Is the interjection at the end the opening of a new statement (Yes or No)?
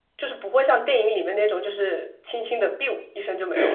Yes